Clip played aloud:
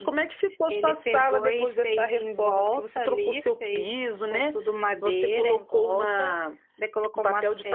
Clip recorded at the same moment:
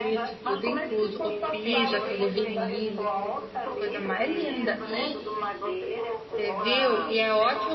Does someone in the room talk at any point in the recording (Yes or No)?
Yes